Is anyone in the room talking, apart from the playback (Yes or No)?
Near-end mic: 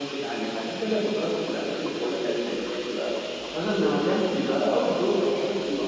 Yes